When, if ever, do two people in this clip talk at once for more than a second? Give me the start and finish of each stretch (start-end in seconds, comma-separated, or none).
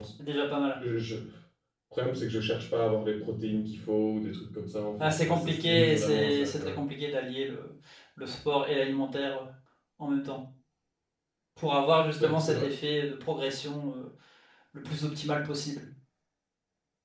5.0-6.8